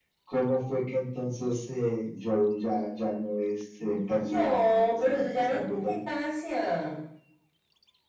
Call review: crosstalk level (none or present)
present